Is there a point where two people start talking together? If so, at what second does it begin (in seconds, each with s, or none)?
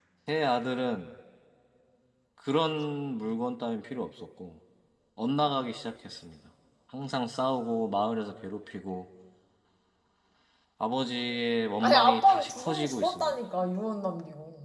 11.8 s